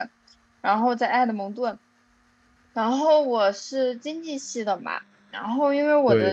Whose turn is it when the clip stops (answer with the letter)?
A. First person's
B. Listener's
A